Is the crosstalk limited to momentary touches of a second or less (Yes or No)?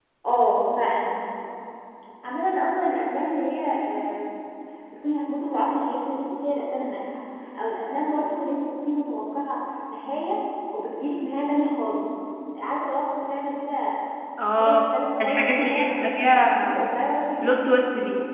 No